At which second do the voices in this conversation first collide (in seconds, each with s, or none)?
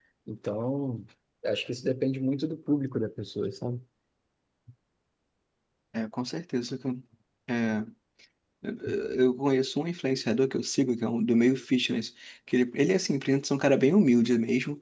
none